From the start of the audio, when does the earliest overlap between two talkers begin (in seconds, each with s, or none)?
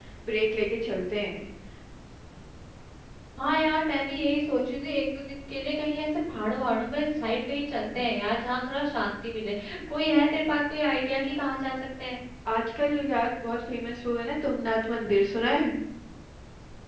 none